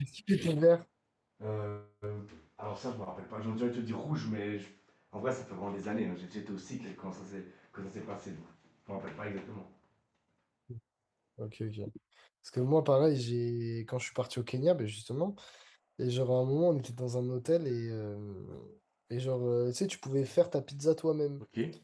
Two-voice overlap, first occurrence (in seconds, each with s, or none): none